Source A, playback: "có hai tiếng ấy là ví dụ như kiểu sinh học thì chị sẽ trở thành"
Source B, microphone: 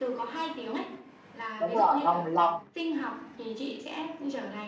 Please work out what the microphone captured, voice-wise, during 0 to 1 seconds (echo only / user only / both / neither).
echo only